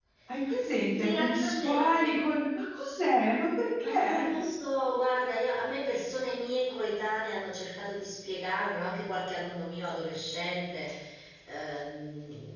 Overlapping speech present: Yes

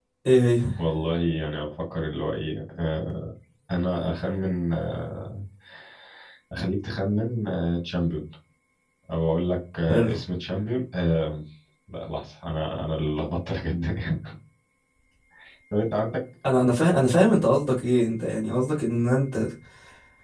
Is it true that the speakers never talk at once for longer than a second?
Yes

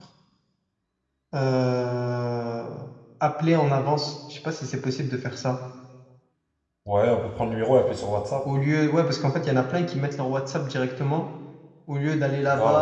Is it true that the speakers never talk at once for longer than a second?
Yes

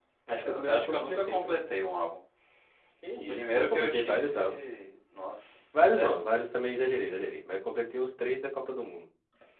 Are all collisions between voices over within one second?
No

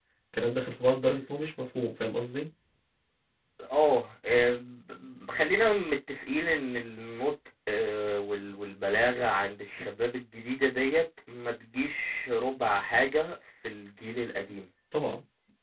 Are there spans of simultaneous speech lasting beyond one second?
No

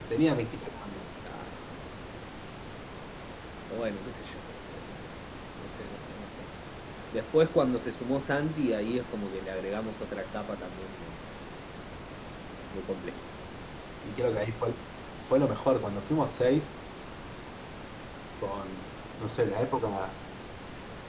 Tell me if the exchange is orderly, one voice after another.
Yes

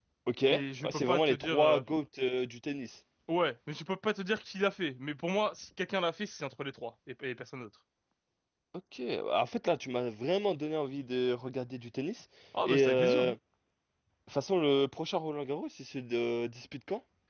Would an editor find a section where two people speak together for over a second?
Yes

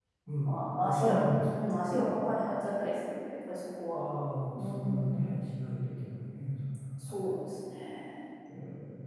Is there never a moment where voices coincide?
No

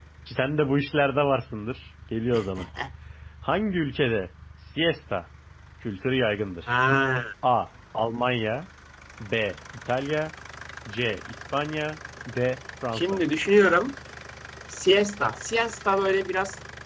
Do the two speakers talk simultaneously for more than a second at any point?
No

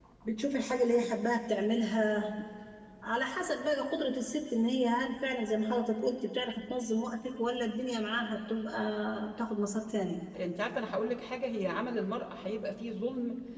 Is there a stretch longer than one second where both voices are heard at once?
No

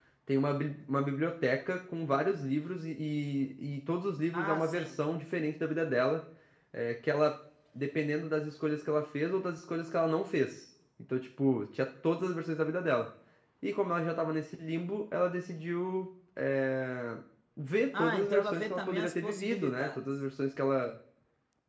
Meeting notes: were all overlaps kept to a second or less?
No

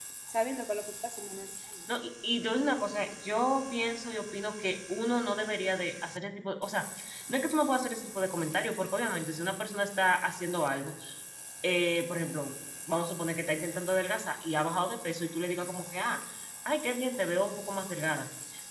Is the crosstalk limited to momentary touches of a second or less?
Yes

